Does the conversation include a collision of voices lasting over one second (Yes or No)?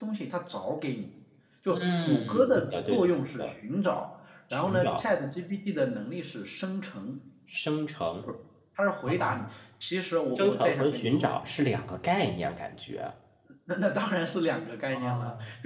Yes